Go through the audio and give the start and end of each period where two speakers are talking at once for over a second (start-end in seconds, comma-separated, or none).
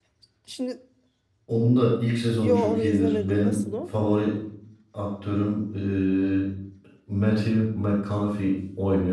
2.4-3.6